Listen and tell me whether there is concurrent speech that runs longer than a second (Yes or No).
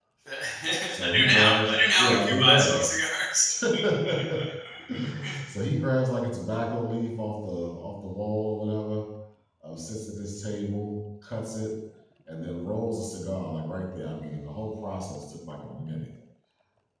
Yes